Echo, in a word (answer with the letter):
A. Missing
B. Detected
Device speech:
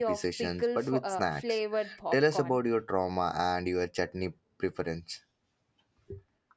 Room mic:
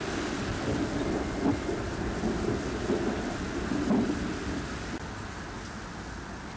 A